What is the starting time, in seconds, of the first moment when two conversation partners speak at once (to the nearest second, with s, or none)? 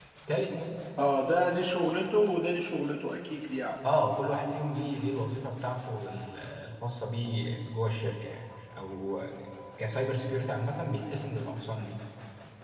none